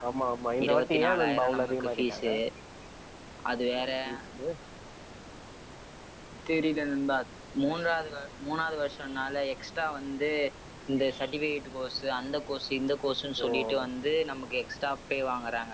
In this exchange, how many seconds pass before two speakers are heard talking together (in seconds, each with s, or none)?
0.7 s